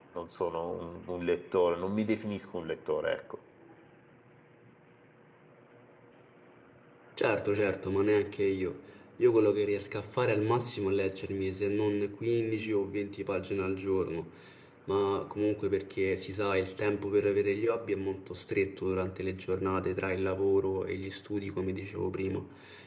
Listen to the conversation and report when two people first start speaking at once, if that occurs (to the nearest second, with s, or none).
none